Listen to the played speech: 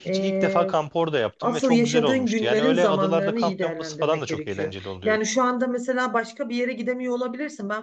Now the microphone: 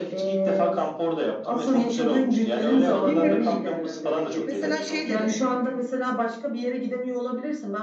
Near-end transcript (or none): Bilmiyorum gezecek bir yer- Mesela şey dedim.